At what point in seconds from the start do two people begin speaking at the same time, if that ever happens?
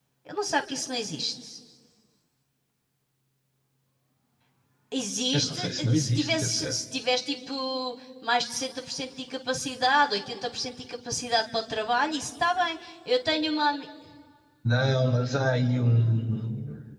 5 s

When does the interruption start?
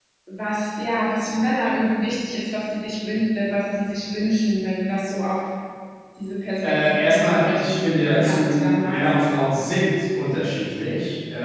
7 s

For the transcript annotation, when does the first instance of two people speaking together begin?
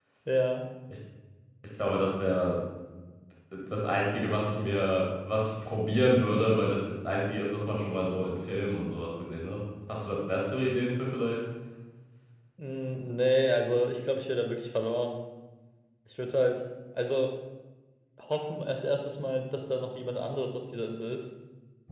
none

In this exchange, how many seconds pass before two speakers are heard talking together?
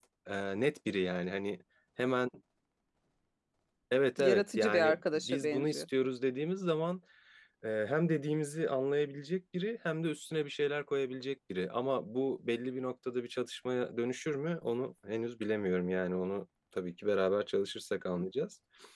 4 s

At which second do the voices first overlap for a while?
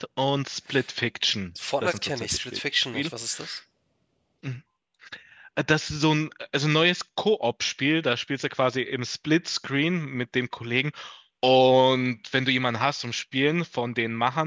2 s

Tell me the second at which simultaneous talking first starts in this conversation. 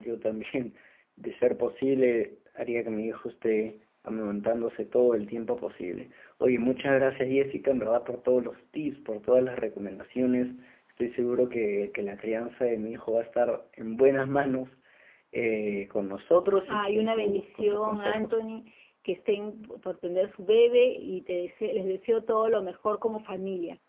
17 s

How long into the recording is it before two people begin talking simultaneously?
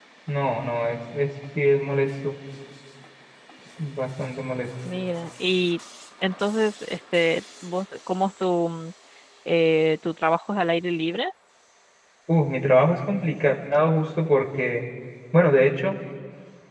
none

